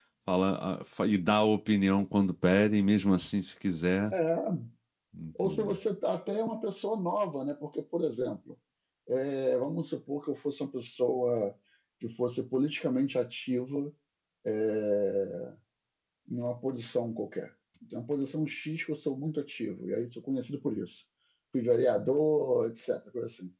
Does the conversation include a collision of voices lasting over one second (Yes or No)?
No